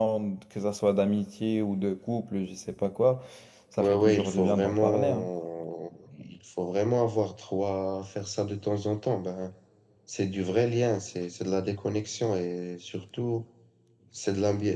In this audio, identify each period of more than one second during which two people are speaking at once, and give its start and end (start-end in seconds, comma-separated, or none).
3.8-5.3